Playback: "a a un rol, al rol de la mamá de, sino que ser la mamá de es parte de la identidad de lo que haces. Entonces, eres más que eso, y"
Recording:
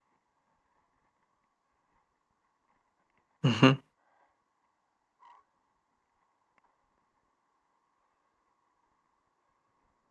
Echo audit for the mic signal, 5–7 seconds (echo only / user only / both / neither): neither